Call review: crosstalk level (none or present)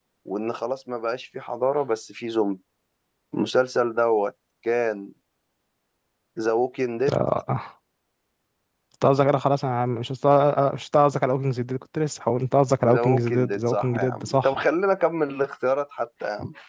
present